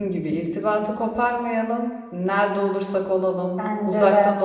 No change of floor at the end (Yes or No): Yes